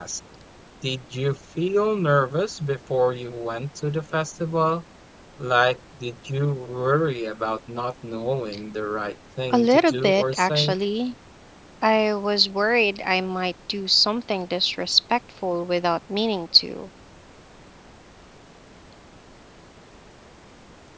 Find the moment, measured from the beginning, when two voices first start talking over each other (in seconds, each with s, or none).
9.5 s